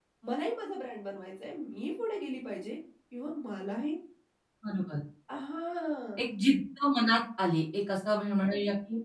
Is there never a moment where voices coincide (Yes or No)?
Yes